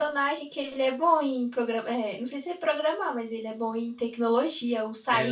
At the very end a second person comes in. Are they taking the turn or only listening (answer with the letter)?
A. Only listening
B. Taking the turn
B